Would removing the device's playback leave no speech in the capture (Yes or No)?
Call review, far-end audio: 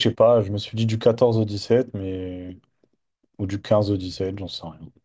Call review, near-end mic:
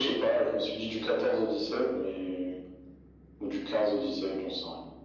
Yes